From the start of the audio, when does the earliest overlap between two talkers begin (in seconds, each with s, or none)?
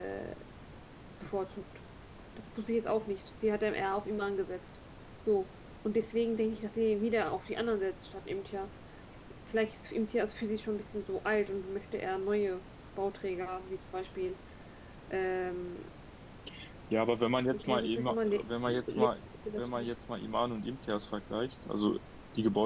17.5 s